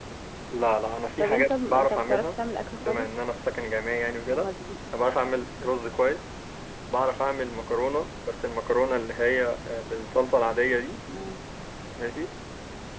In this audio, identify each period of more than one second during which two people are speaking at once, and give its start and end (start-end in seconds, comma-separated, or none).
1.2-2.4